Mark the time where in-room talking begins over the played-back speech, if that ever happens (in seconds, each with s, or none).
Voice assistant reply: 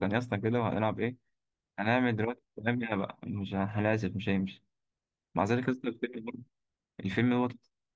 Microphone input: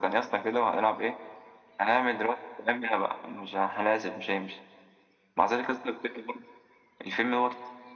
none